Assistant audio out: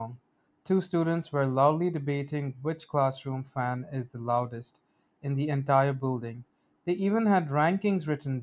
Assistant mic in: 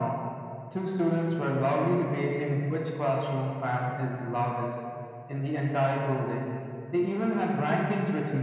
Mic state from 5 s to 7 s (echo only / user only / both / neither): echo only